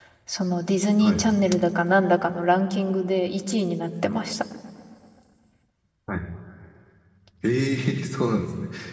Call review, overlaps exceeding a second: none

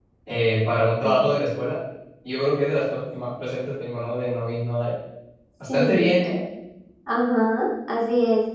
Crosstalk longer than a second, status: none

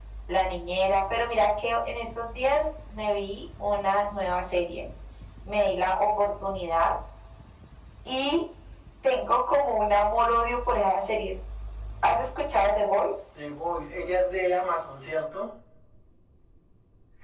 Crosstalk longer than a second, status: none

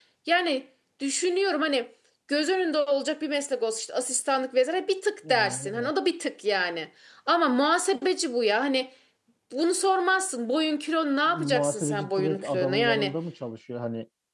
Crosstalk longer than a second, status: present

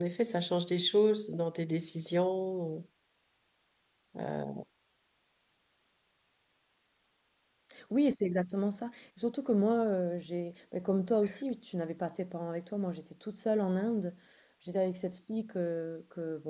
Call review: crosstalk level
none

